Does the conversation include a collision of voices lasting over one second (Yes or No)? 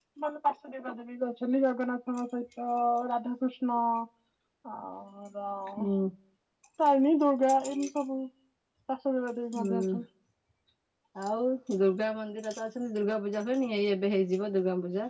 No